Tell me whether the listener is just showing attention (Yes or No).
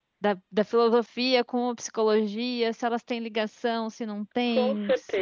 No